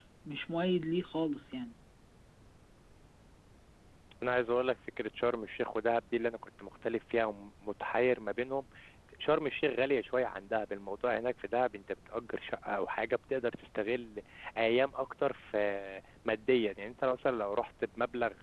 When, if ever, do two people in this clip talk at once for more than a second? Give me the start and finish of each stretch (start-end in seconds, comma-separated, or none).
none